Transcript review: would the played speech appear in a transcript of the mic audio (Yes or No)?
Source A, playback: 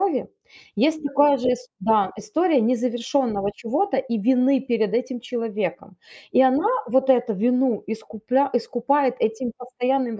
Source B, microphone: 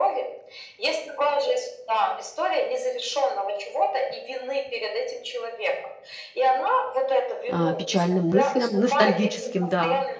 Yes